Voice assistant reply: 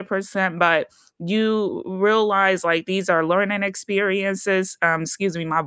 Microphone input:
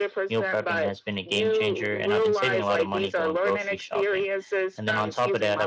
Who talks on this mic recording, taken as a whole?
both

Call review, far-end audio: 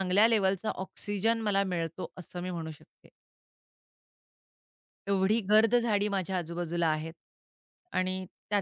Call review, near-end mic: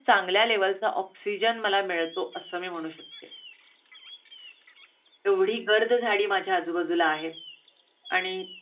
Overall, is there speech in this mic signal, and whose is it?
echo only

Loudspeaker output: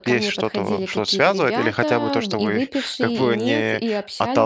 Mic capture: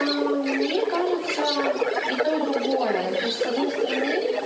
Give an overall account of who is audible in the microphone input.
both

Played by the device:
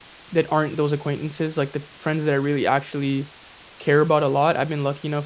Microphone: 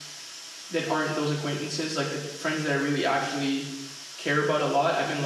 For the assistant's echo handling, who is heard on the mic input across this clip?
echo only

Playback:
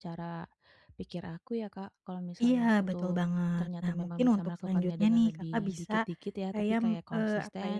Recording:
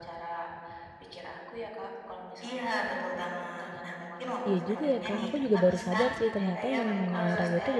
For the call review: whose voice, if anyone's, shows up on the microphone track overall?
both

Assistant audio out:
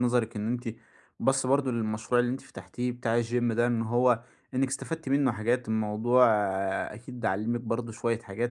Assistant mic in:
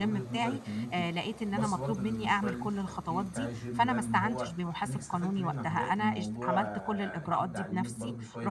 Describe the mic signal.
both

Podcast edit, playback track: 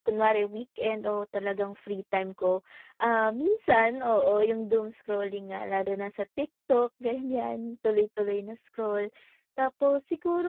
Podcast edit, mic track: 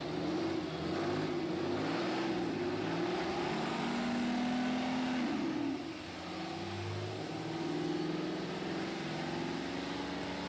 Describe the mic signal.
neither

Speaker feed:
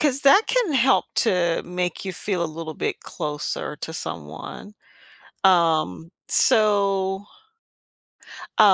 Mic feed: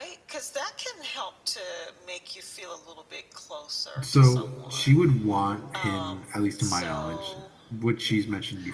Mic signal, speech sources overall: both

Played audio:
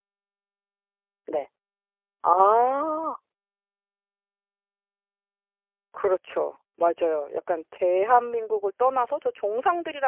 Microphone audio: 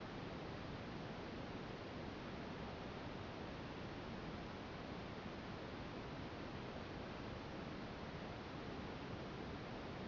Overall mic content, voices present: neither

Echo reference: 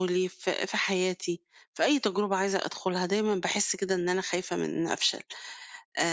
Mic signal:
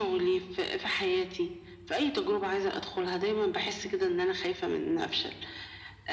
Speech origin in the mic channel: echo only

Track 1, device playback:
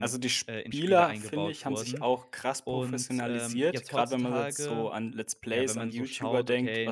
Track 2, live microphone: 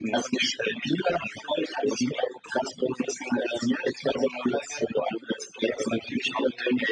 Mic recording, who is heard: echo only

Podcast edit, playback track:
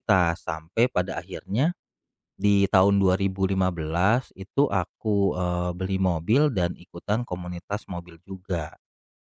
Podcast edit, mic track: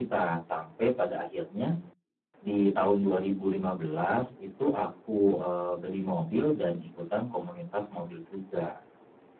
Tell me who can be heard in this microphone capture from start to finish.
echo only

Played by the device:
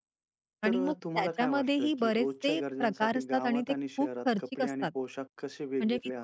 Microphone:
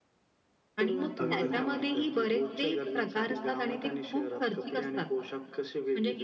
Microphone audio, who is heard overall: both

